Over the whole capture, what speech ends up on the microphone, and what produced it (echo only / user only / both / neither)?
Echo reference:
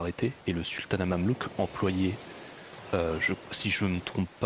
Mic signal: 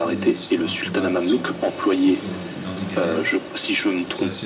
both